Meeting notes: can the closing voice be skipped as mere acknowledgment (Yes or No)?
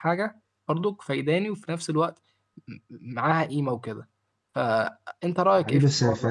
No